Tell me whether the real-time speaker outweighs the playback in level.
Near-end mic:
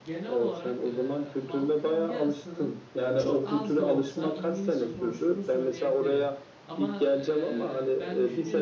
No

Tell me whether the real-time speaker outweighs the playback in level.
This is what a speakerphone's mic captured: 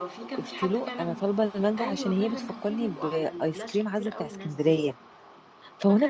Yes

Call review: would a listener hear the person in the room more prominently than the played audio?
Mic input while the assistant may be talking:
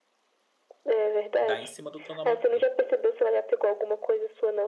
No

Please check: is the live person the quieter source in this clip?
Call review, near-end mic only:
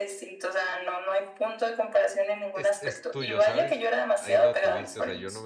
Yes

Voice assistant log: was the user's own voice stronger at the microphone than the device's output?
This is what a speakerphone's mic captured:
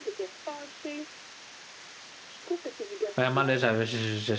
Yes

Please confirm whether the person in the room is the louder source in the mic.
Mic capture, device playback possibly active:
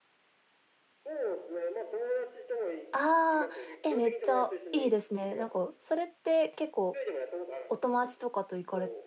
Yes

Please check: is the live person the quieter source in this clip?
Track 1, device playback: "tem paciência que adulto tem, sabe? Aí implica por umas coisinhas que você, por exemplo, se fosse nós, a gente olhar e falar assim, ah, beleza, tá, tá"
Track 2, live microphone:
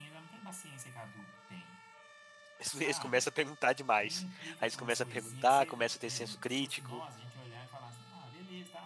No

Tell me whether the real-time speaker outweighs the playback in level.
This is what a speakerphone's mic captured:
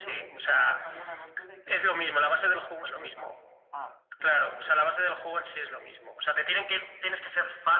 No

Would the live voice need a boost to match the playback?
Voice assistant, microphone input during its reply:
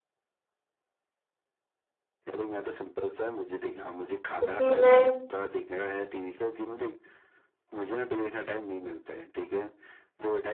No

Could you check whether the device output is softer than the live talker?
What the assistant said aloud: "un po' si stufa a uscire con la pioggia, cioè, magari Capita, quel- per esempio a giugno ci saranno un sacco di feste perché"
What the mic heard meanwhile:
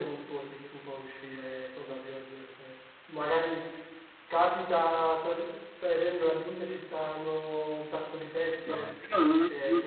Yes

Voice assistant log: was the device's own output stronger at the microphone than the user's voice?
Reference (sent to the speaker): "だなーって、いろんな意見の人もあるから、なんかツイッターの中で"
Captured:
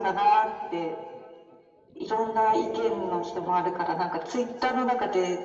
Yes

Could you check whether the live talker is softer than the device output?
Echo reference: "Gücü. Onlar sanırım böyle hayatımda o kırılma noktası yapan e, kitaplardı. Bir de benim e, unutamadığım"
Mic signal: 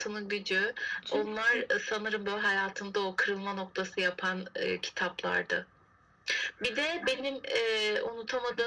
Yes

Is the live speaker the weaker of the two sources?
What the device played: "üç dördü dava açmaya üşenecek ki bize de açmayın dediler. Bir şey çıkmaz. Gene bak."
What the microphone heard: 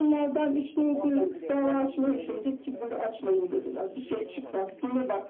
Yes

